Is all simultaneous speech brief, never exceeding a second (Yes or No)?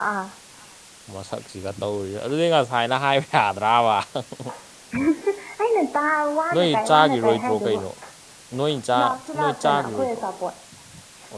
No